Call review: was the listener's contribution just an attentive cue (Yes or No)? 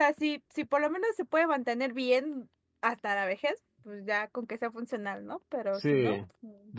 No